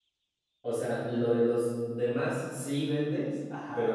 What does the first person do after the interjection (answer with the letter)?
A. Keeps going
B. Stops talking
B